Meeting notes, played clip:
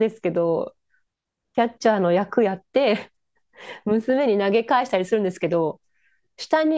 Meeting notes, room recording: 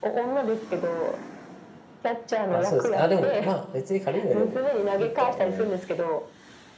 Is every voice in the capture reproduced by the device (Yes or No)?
No